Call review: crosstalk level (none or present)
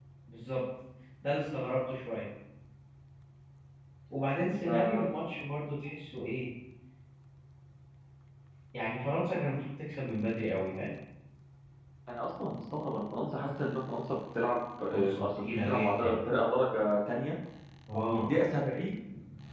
present